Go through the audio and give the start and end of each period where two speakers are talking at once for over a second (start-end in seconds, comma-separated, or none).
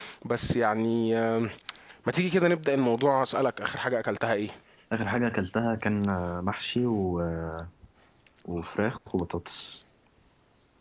none